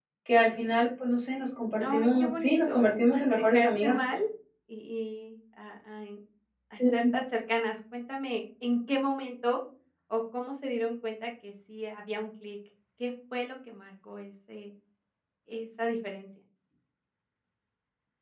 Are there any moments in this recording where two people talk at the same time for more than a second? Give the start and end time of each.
1.8-4.0

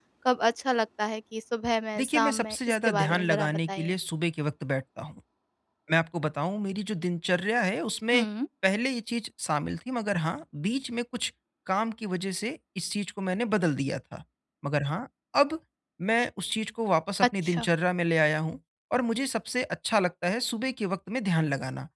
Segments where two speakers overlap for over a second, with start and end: 2.0-3.9

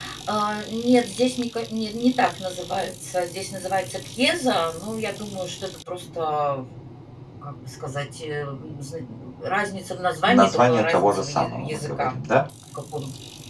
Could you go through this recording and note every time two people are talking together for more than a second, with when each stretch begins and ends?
10.3-12.1

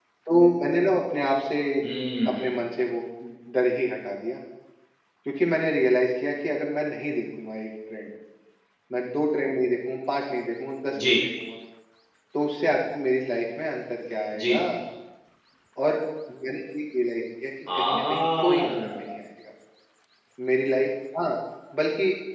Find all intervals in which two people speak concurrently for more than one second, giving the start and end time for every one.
17.7-19.1

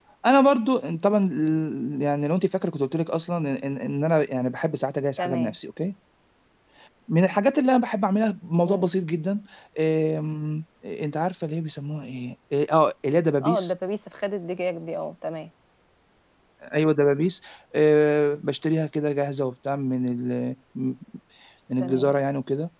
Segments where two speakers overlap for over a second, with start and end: none

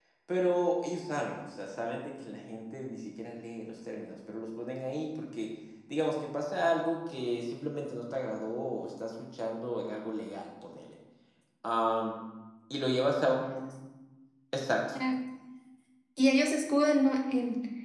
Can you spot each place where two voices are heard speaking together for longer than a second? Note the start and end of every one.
none

